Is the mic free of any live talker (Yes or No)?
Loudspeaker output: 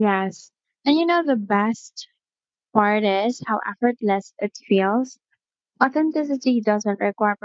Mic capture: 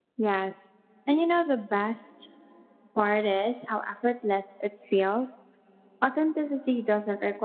Yes